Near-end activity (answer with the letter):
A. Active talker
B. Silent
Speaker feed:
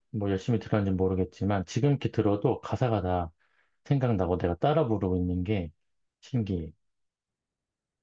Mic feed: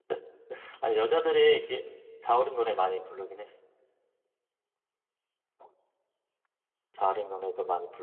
A